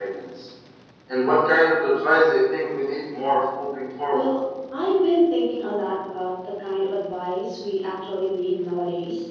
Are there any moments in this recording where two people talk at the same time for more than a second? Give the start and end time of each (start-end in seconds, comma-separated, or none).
none